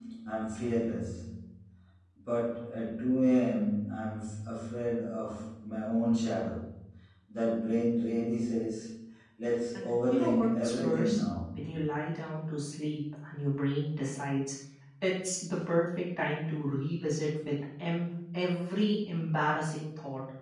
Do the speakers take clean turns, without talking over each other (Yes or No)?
No